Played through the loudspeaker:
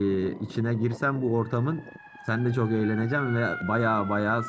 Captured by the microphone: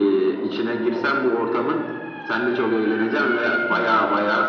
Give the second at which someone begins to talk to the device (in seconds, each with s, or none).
none